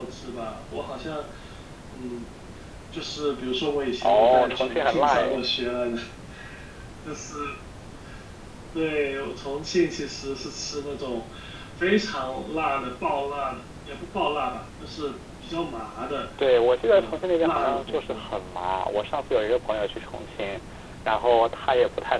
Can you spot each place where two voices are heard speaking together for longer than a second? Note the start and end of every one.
4.0-5.4, 16.9-18.2

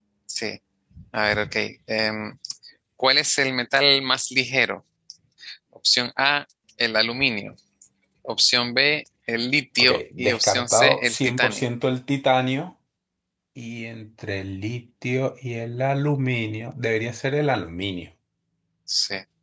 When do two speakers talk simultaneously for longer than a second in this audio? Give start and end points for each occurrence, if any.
9.8-11.7

